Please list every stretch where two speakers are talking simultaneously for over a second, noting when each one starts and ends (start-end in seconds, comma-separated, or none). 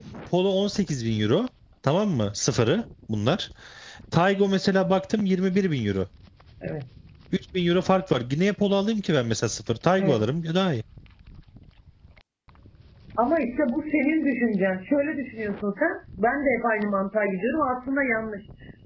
none